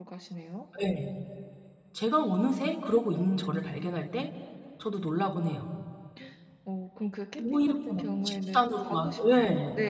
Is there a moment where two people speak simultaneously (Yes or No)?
Yes